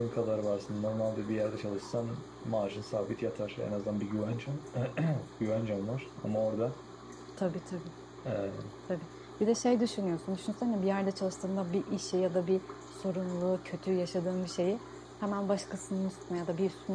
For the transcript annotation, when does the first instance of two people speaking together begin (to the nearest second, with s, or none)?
none